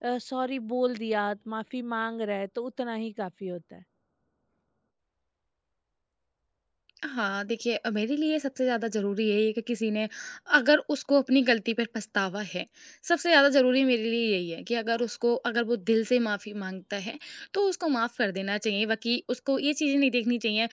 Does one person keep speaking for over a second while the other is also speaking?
No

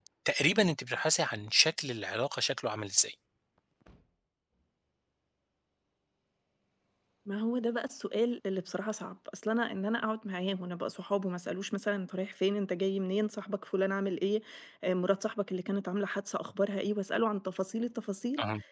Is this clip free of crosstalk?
Yes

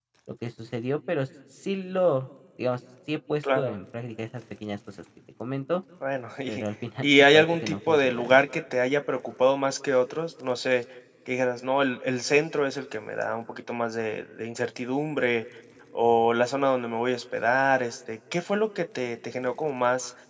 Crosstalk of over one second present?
Yes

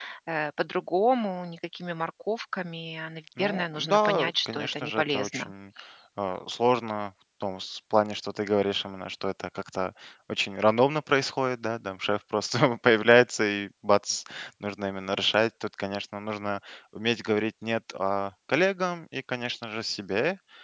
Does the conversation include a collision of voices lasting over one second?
Yes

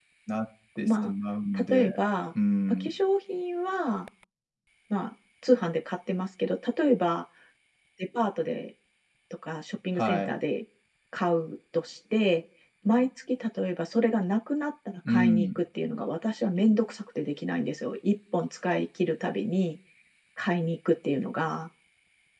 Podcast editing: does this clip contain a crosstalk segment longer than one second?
No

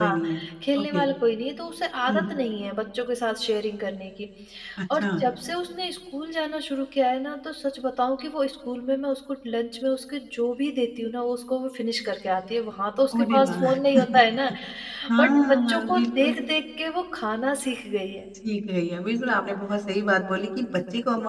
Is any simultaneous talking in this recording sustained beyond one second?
Yes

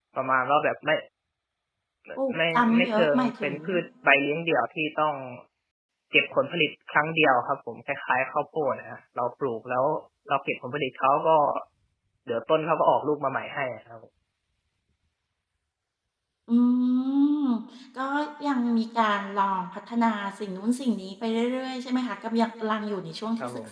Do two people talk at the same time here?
Yes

